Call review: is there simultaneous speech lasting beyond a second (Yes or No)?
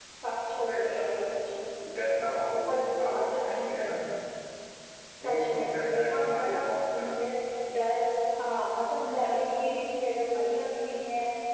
Yes